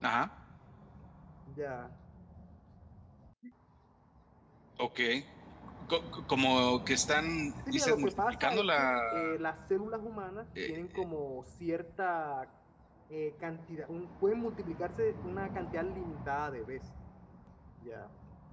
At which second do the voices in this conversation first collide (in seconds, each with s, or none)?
7.7 s